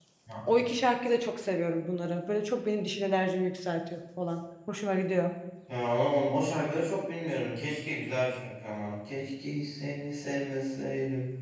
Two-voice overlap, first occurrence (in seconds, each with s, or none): none